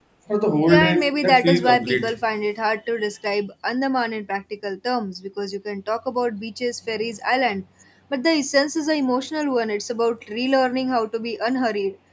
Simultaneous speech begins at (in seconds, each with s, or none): 0.7 s